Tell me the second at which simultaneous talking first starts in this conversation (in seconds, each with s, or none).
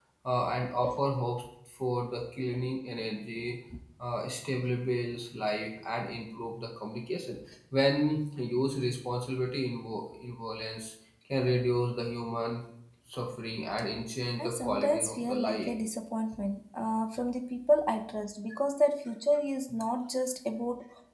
14.4 s